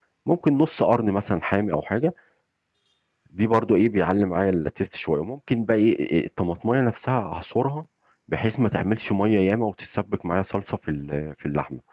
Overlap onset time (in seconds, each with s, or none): none